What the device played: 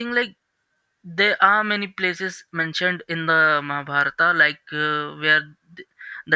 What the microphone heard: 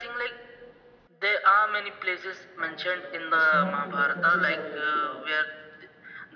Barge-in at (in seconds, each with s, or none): 2.6 s